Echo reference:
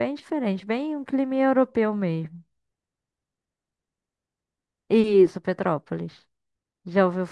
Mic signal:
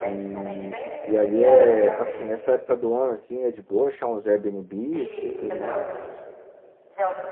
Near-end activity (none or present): present